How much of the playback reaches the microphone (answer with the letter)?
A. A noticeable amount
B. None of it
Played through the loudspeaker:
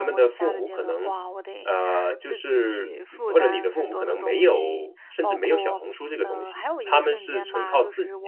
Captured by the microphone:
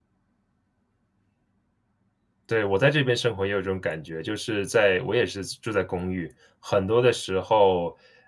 B